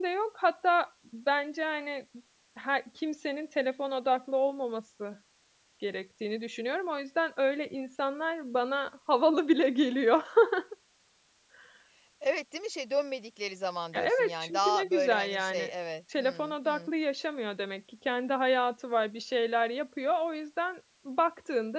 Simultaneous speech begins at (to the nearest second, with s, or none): 14 s